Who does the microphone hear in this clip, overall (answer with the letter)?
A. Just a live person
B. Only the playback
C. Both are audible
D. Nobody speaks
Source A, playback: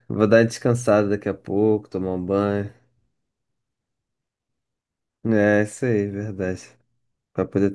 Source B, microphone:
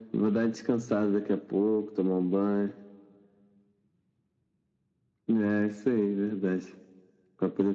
B